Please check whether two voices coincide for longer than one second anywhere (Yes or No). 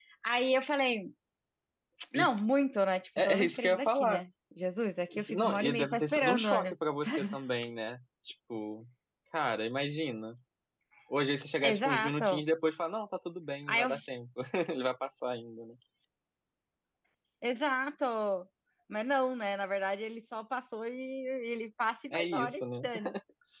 Yes